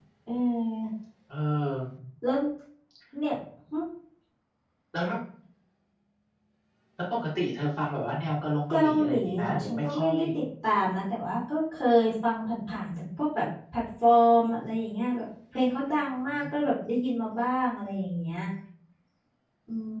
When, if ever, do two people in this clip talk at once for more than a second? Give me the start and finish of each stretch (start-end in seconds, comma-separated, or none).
8.7-10.2